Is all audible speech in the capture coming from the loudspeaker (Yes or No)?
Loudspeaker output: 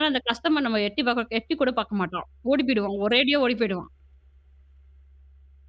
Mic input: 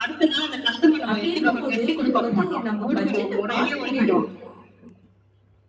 No